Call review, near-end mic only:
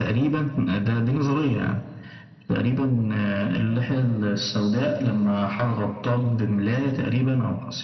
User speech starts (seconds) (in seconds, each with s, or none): none